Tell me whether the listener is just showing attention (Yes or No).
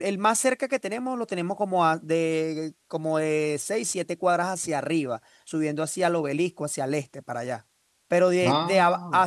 Yes